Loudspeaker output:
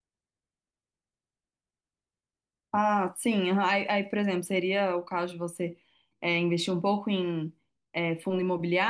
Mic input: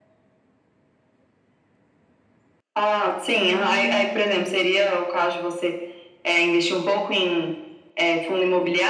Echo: present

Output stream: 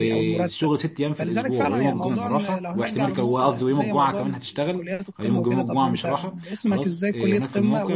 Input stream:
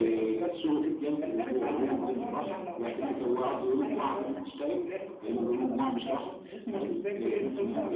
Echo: present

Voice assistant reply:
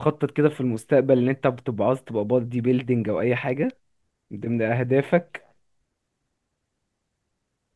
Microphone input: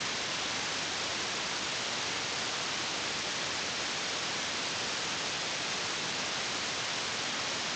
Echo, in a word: none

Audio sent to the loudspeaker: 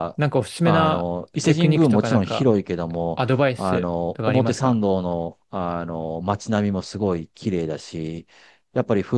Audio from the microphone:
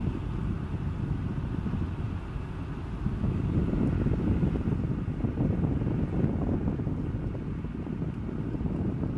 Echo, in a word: none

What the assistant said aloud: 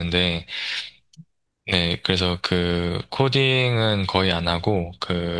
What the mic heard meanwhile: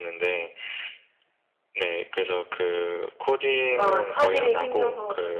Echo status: present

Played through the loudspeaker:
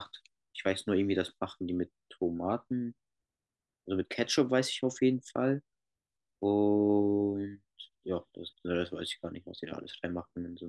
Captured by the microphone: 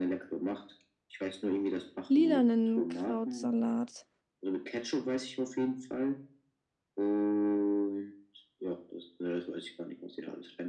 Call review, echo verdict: present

